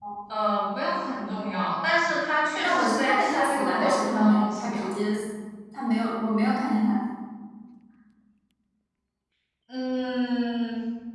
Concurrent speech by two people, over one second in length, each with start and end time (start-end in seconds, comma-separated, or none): 2.6-5.0